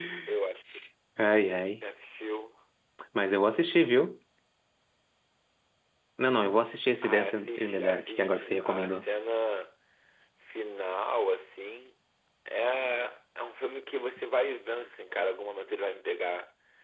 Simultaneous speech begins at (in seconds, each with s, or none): 7.0 s